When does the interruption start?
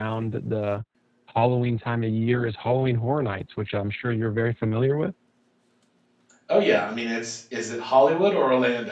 none

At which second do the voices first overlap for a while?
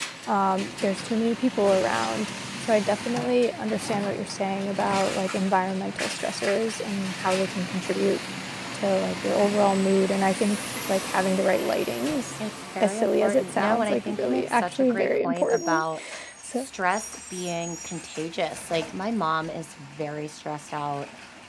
12.8 s

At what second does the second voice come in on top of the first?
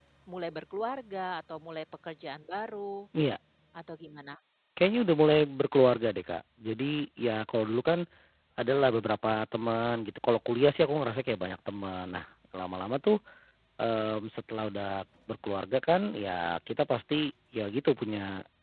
none

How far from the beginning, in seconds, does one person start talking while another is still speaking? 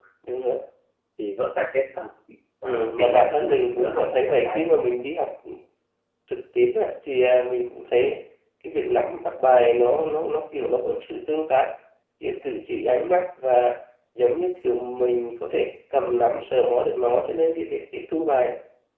2.6 s

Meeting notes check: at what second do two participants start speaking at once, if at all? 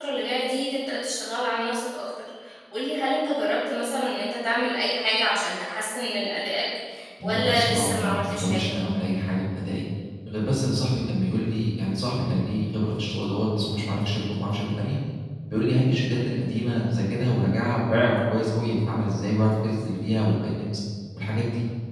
7.2 s

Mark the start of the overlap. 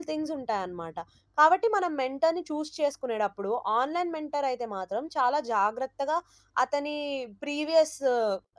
none

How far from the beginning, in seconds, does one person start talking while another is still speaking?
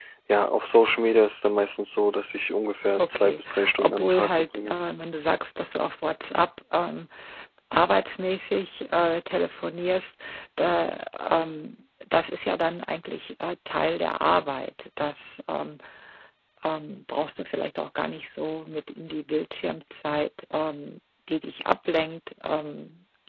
3.0 s

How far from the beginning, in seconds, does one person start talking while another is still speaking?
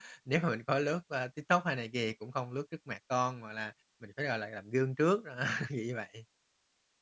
none

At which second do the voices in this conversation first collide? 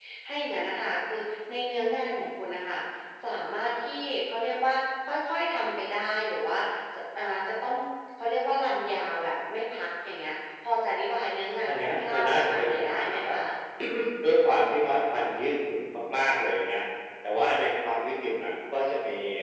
11.7 s

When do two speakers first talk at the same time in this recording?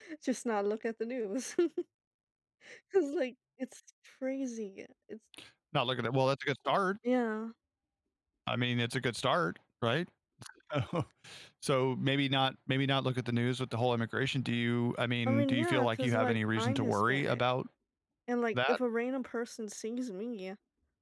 15.3 s

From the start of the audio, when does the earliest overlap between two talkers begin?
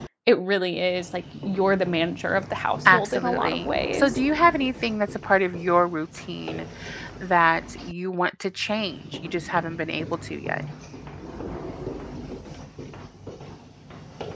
2.8 s

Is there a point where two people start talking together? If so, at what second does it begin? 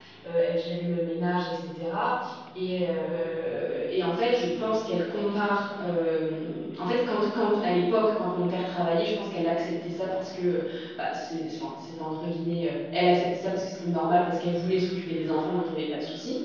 none

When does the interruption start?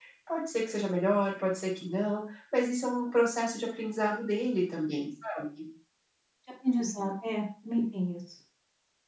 none

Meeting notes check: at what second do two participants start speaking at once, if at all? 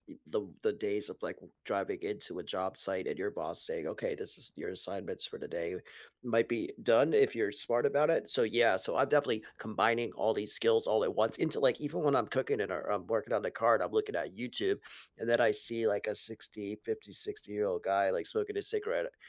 none

